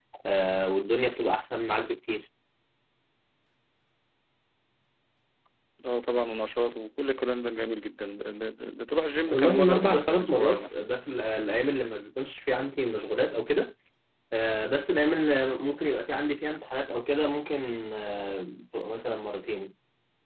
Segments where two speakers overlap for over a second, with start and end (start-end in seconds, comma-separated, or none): 9.3-10.8